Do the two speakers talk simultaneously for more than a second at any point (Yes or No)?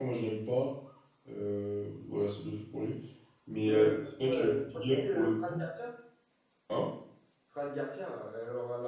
Yes